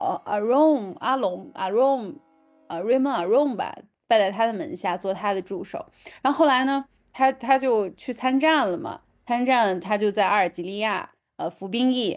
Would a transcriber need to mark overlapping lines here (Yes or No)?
No